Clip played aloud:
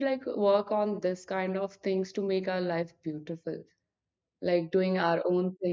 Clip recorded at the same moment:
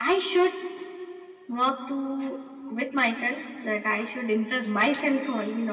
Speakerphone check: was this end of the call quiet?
No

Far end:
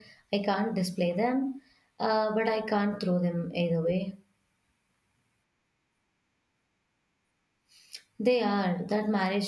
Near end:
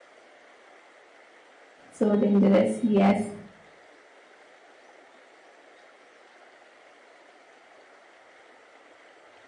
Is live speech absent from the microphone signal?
No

